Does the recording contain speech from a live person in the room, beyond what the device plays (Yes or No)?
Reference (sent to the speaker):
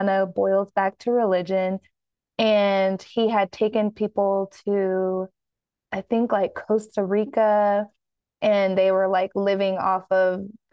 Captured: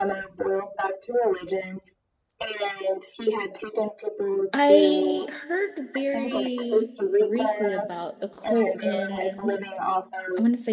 Yes